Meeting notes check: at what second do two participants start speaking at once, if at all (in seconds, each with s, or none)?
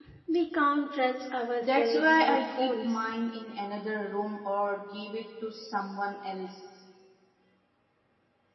1.6 s